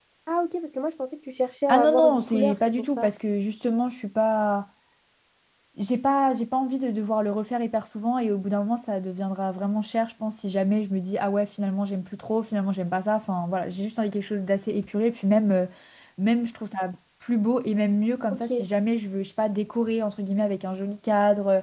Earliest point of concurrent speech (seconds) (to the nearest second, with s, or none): 2 s